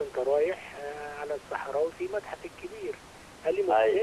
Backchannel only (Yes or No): Yes